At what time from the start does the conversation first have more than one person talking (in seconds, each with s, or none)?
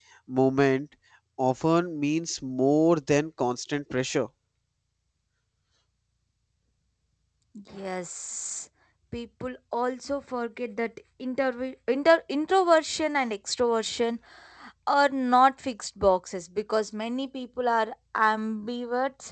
none